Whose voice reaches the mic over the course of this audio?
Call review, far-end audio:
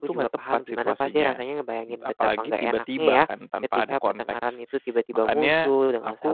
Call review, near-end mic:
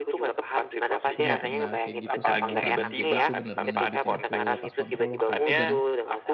both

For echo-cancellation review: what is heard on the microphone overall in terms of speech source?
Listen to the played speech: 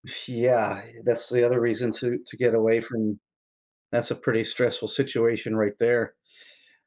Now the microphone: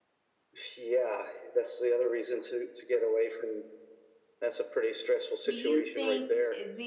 both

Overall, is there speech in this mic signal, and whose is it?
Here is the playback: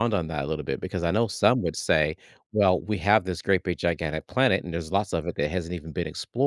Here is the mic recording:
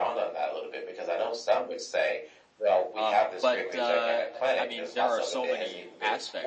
both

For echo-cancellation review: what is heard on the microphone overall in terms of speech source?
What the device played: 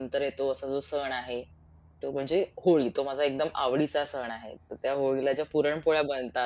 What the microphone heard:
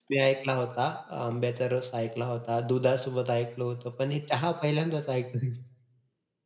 user only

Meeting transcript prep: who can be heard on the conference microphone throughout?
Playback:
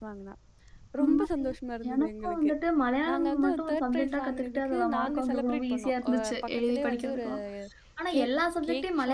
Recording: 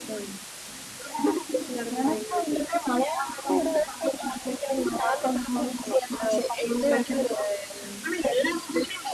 echo only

